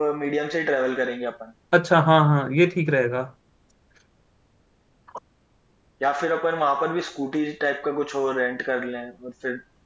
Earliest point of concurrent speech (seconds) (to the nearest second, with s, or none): none